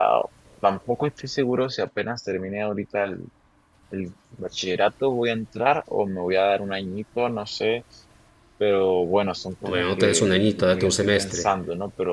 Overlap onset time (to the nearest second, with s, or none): 10 s